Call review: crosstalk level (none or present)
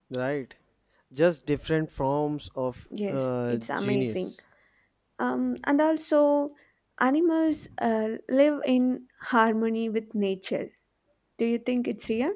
present